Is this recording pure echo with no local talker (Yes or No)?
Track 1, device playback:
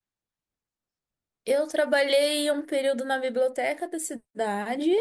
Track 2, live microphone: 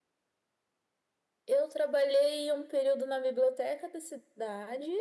Yes